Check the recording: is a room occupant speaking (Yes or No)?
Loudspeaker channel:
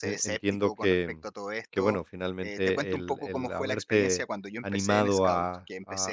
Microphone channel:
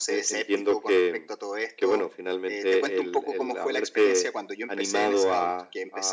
No